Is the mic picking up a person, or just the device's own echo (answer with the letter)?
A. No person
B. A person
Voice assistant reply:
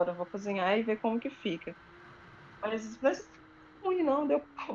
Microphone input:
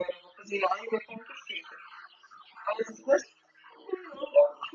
A